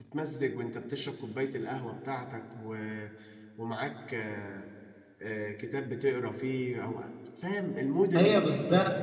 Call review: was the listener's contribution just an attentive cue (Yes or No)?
No